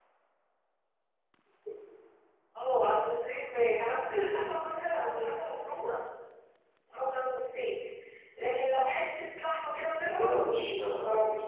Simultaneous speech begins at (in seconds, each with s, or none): 10.1 s